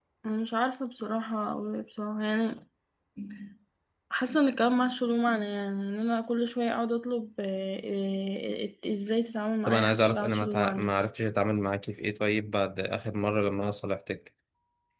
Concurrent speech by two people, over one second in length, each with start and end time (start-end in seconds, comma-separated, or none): 9.7-10.9